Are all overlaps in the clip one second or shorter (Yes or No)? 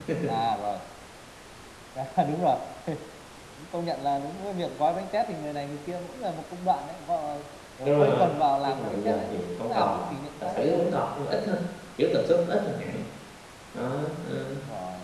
No